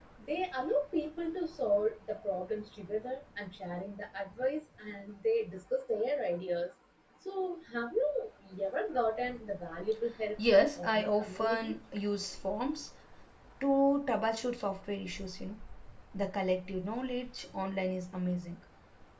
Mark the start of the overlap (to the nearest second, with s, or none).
10 s